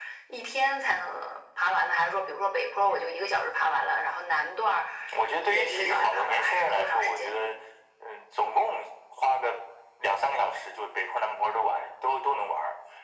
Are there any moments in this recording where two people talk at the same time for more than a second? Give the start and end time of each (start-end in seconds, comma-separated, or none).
5.4-7.5